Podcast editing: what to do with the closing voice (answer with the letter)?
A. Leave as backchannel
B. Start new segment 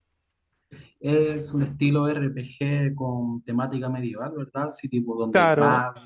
B